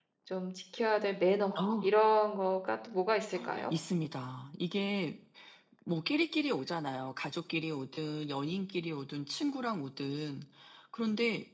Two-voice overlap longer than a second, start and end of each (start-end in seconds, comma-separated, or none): none